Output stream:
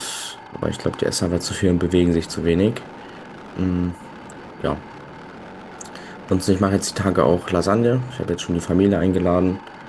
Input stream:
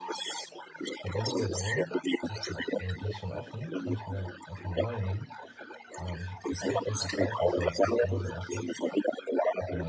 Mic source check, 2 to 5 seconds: both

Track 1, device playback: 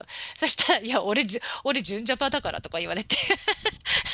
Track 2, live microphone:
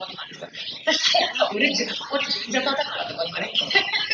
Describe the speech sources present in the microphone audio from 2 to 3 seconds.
echo only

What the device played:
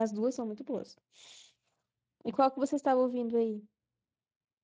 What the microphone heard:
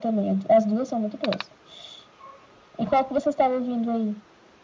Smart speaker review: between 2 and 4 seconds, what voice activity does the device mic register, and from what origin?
echo only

